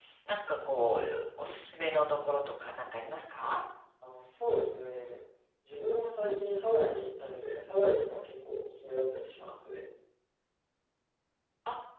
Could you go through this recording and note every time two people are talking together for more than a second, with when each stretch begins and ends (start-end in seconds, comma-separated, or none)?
none